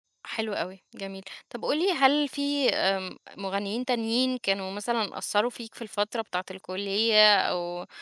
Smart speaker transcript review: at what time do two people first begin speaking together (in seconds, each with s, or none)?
none